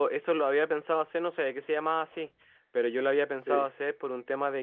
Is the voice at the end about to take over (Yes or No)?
No